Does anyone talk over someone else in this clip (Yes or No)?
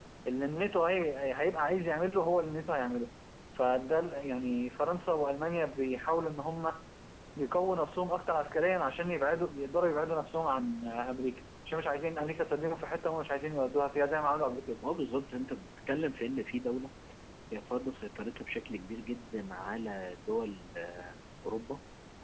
No